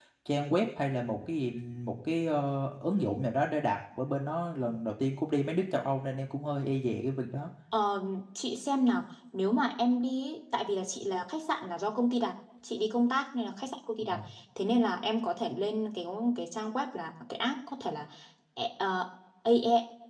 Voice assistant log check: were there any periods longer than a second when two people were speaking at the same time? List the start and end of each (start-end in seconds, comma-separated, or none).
none